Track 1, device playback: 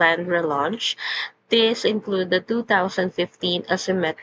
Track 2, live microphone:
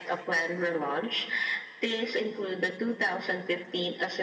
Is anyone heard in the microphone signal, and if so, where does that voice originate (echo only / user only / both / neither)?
echo only